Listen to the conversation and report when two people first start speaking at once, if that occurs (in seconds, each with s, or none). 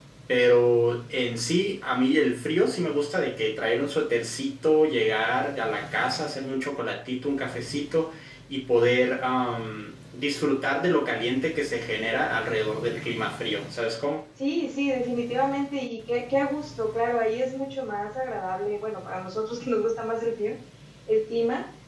none